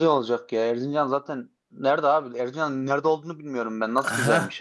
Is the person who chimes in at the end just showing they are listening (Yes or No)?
No